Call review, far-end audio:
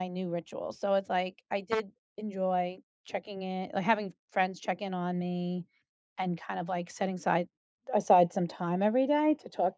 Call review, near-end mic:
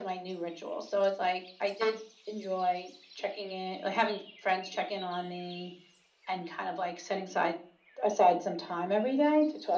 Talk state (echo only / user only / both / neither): echo only